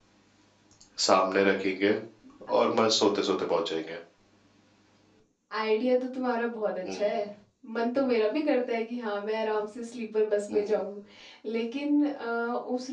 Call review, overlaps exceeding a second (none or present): none